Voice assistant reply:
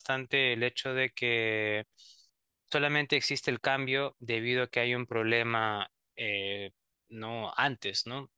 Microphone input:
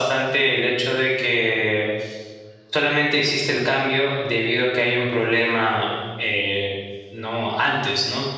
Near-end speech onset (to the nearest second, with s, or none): none